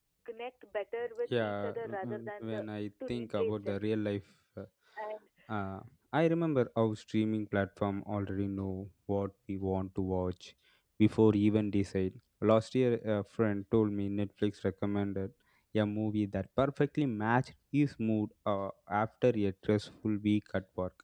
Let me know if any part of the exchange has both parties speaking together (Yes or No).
Yes